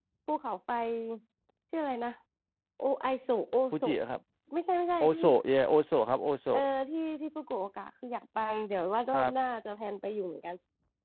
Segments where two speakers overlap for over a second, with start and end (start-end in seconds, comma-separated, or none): none